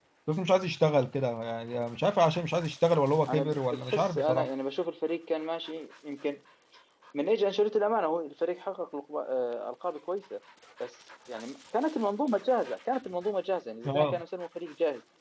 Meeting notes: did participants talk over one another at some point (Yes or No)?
Yes